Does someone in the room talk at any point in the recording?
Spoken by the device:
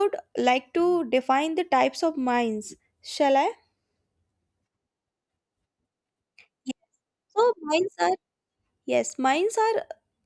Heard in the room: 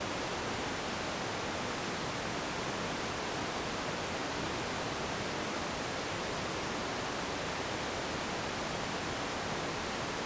No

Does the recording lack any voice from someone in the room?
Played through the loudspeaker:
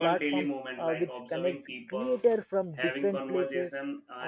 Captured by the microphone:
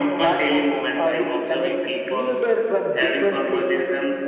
Yes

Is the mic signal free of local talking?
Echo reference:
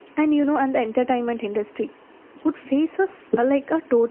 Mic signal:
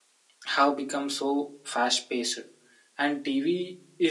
No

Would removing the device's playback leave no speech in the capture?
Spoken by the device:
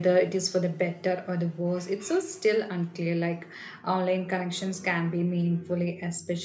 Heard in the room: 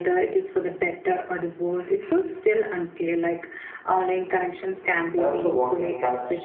No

